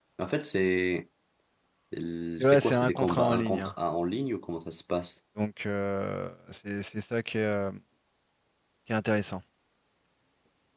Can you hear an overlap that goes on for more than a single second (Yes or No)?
Yes